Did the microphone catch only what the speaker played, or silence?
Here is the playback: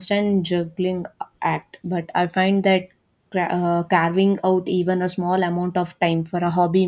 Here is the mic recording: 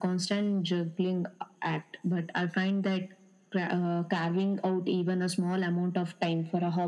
Yes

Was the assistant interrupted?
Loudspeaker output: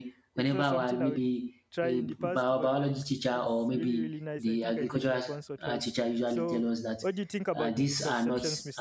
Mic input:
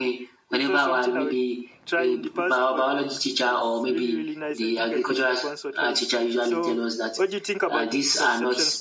No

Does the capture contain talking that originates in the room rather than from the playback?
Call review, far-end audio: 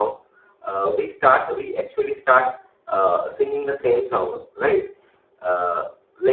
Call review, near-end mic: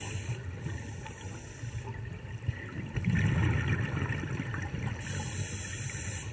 No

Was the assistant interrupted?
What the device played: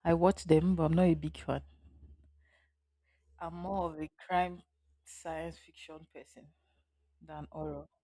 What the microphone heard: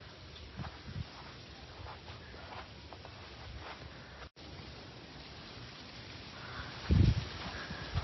No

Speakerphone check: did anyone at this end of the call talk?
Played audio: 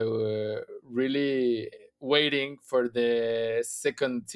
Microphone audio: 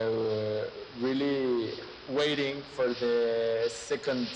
No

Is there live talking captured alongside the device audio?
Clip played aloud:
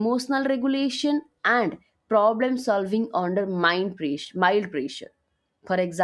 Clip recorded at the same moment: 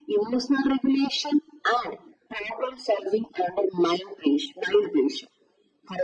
No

